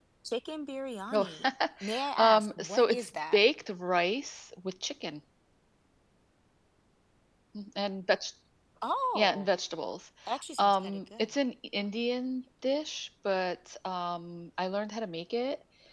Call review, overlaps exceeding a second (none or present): present